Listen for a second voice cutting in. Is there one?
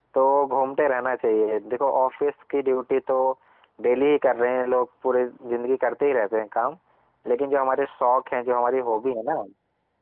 No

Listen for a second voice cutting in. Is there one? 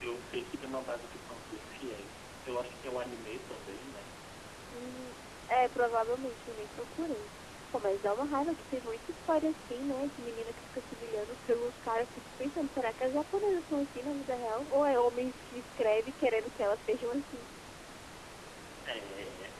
No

